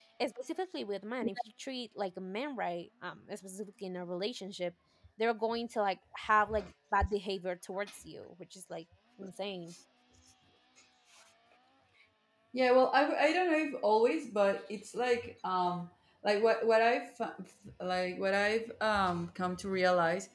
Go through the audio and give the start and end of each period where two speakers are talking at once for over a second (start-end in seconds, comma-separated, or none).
none